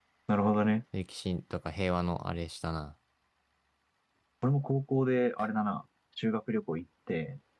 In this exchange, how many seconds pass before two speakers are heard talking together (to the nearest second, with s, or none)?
none